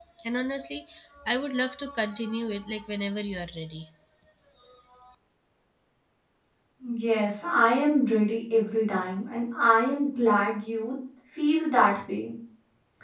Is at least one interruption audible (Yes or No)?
No